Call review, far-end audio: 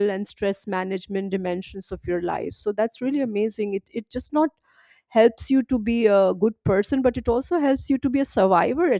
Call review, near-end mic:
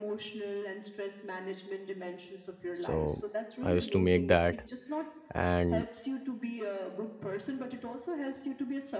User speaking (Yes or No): Yes